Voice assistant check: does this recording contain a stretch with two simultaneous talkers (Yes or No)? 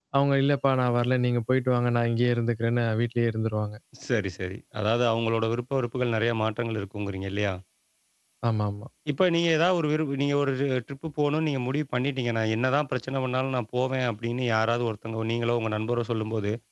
No